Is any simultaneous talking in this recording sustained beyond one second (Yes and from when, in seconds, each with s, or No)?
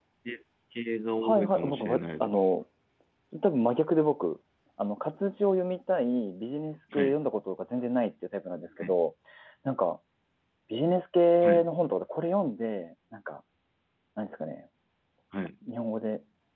Yes, from 1.2 s